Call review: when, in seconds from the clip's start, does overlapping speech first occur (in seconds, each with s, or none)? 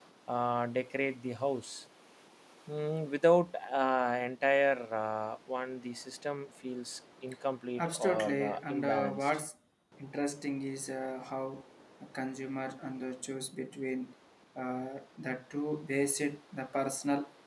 7.8 s